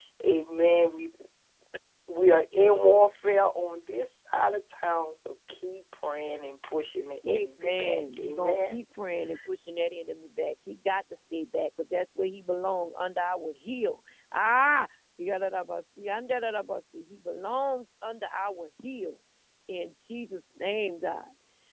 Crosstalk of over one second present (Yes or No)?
Yes